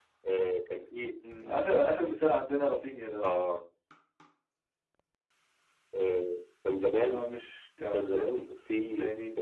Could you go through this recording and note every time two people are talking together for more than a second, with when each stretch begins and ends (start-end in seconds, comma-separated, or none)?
none